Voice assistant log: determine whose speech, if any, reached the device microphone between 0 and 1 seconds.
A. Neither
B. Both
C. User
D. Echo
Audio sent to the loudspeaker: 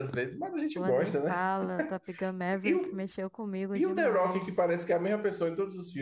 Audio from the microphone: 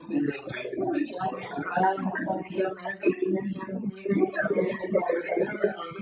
D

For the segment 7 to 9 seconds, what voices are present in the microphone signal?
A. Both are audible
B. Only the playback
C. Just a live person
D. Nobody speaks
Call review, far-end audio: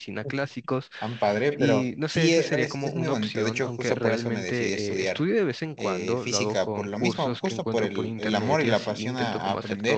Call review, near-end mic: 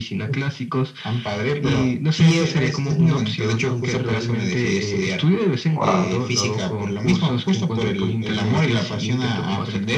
B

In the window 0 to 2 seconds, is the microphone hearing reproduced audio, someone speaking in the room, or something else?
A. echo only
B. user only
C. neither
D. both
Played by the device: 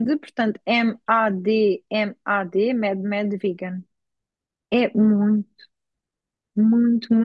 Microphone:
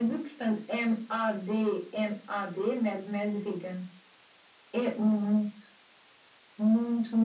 A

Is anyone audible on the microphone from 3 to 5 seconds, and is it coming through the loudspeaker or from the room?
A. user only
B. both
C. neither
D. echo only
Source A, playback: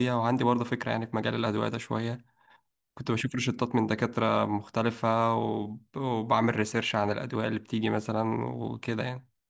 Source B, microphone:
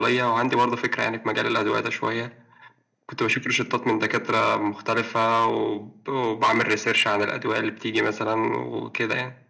D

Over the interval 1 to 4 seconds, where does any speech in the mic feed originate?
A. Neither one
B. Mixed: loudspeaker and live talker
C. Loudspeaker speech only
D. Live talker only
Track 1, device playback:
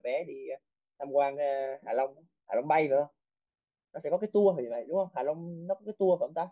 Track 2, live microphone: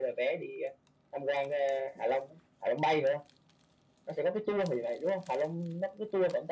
C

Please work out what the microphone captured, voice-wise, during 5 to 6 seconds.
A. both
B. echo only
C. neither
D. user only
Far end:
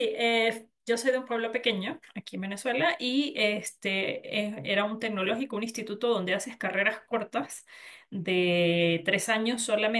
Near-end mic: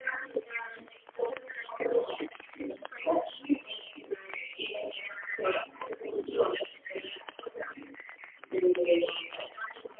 B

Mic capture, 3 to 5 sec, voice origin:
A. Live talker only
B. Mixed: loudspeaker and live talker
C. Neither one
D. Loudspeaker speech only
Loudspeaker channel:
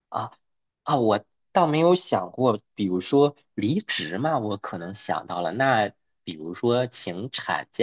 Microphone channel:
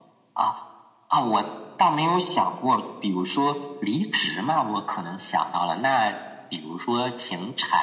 D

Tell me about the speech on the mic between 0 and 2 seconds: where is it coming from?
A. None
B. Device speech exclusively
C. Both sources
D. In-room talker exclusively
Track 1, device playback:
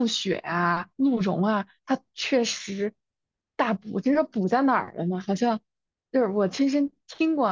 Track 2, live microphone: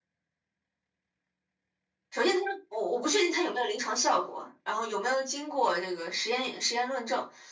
A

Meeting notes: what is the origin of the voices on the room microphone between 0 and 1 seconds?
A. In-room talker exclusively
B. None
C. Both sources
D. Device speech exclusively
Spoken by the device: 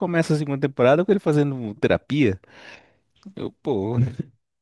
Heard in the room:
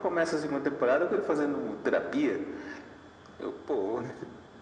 D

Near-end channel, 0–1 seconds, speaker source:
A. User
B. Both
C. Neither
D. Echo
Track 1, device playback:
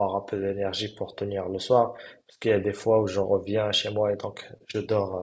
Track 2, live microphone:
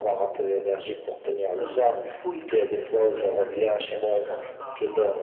D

